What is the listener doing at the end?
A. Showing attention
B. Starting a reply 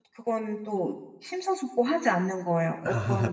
B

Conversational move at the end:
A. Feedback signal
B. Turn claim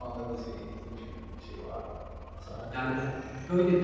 B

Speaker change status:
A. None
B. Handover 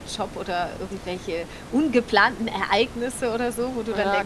B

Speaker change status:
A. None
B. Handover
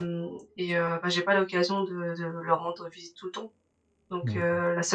A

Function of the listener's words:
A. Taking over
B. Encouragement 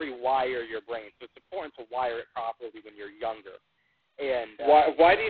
A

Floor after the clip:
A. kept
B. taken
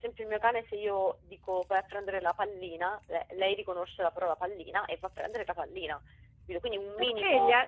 B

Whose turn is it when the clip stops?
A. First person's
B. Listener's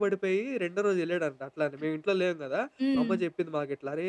A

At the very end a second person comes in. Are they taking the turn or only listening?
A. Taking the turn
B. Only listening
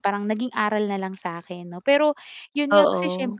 B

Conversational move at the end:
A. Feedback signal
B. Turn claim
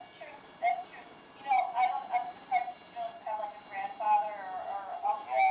B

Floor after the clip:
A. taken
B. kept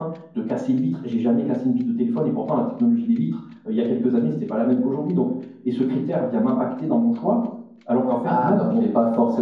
A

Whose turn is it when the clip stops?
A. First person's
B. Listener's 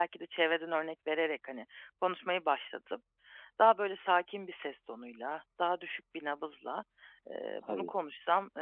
A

